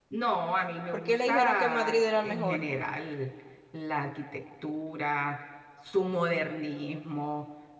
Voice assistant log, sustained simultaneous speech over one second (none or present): present